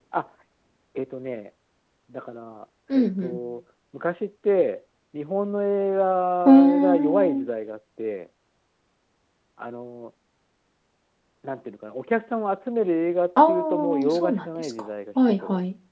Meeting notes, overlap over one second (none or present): present